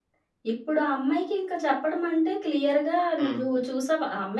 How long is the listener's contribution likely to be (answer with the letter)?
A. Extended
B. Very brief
B